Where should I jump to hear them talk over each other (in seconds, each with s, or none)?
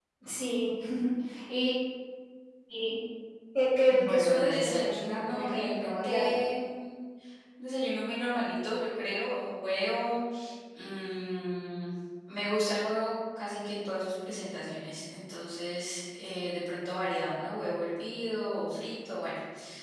4.0 s